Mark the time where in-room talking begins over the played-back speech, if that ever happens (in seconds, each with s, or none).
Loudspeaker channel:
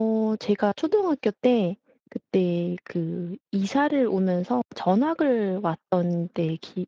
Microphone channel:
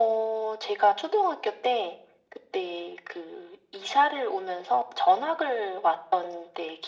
none